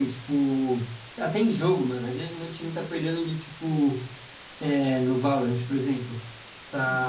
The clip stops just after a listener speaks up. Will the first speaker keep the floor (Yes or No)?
Yes